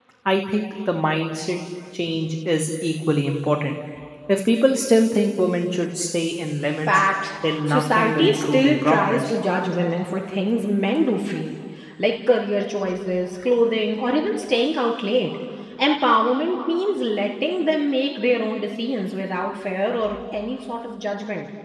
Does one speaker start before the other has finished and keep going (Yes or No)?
Yes